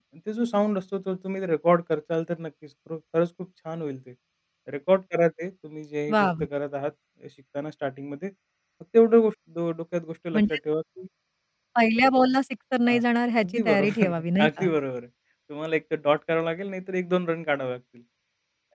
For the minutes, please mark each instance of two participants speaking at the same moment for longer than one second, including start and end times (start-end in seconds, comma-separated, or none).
13.4-14.7